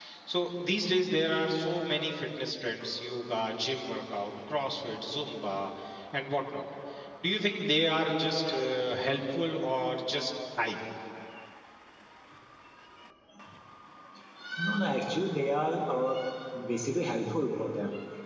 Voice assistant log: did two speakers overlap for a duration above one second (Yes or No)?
No